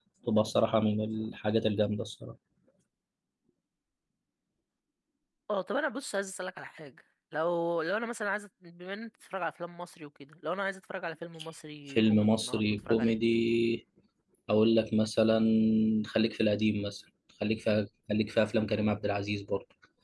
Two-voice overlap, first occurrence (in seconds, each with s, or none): 11.9 s